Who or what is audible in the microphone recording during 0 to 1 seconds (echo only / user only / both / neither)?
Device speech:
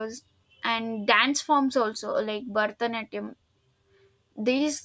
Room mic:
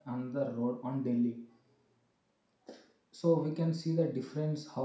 user only